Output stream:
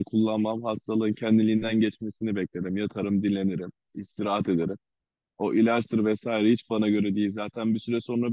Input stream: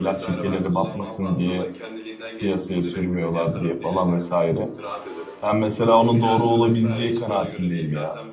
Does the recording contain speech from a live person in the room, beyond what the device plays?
Yes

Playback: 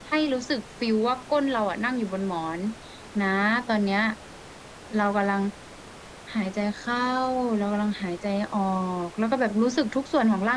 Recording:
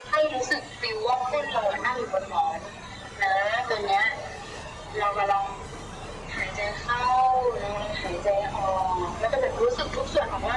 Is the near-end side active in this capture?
No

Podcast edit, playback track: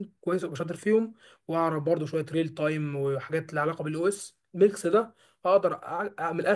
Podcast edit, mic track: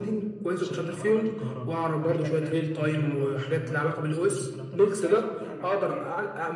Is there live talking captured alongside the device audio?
Yes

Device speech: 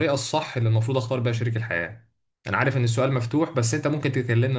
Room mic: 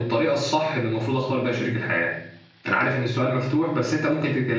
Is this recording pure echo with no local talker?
Yes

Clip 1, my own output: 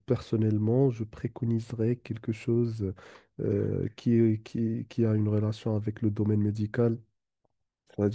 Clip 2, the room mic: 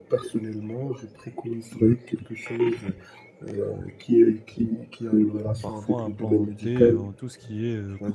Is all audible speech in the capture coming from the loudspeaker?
No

